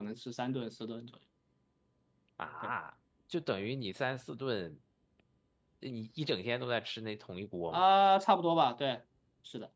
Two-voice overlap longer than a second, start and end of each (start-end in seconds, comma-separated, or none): none